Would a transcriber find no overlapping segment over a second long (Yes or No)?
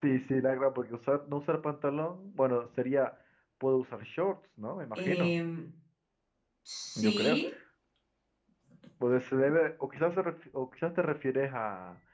Yes